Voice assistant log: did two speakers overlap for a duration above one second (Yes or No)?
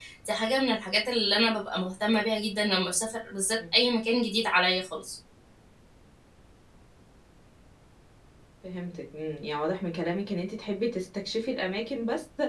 No